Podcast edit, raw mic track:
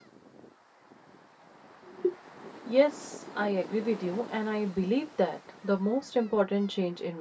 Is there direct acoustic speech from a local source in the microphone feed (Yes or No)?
Yes